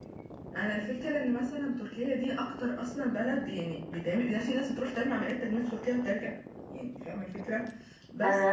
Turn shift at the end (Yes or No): No